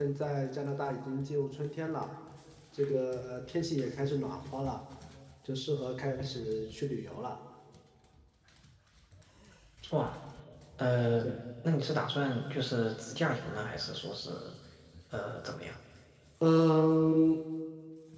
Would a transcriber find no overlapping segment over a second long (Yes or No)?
Yes